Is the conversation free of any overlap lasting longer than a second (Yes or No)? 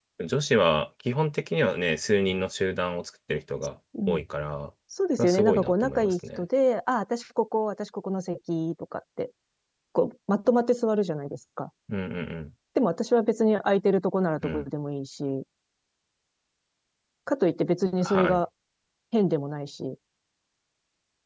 No